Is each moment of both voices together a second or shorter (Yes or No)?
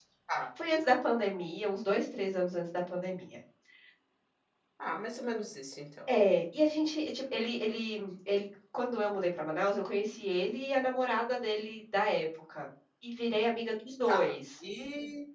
Yes